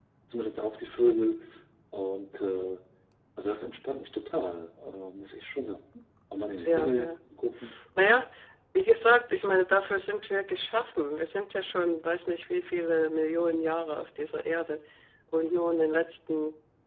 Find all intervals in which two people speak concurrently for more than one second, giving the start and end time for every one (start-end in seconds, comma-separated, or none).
none